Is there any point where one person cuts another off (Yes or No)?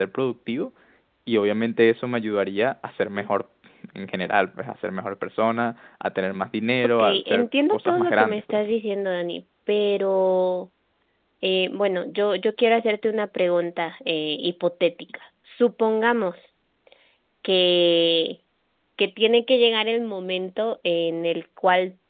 Yes